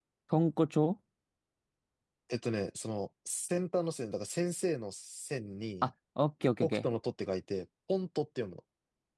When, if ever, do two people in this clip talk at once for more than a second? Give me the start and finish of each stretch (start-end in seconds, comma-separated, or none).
none